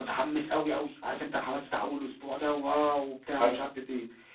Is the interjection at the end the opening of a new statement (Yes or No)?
No